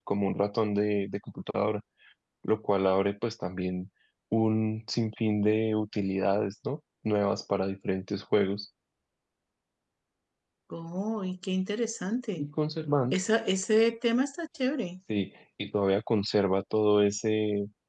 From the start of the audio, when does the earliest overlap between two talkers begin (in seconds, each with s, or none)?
none